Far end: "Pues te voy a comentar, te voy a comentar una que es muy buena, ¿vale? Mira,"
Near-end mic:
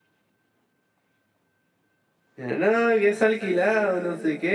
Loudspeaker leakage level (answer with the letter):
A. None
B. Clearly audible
A